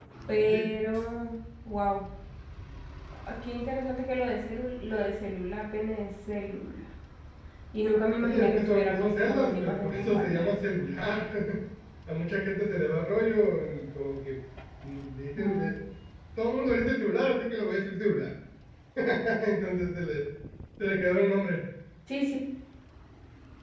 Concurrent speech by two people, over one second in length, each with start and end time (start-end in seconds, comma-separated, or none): 8.2-10.5